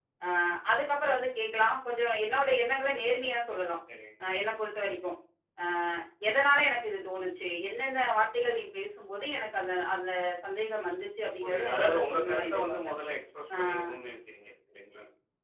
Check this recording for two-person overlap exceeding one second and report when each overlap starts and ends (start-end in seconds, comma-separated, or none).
11.4-12.9